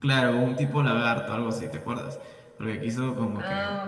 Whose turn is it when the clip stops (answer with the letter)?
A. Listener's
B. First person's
A